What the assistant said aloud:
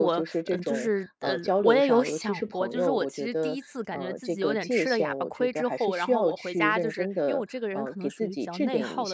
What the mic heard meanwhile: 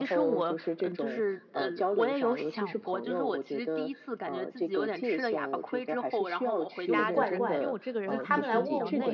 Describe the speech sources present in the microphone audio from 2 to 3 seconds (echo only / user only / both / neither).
echo only